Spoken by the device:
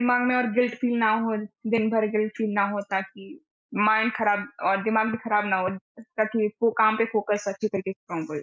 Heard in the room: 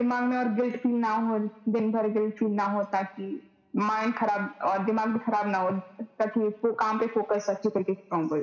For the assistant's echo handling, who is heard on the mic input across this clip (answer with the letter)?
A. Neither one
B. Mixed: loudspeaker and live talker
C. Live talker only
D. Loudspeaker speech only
D